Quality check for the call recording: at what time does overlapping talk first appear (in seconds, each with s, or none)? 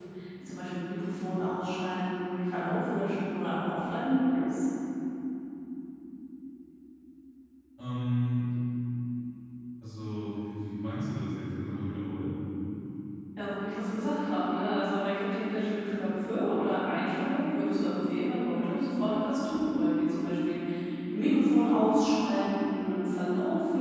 none